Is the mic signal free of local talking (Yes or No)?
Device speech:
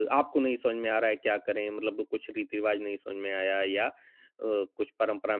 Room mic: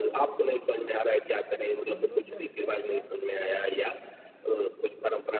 No